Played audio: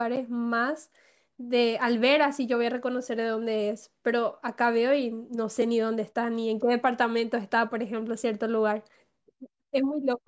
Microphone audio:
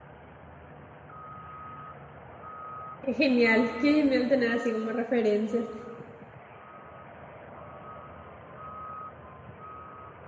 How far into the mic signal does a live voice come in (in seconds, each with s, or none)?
3.0 s